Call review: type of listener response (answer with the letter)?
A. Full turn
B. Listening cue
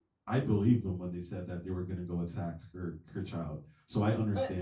A